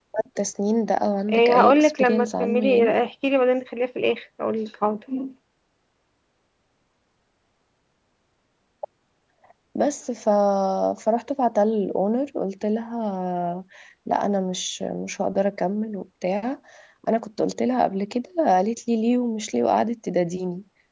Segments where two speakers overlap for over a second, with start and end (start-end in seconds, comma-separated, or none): 1.3-3.0